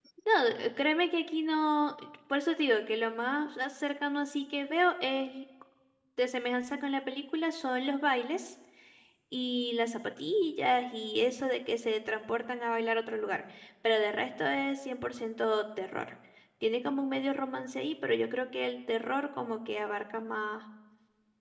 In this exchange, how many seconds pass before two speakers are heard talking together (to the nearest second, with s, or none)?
none